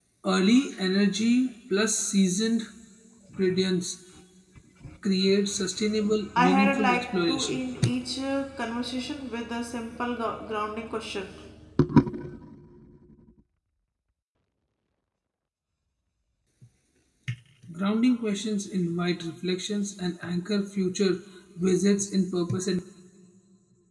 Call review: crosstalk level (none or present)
present